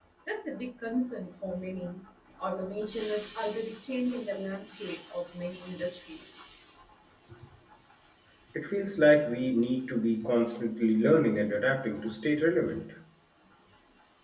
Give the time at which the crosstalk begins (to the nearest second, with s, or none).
none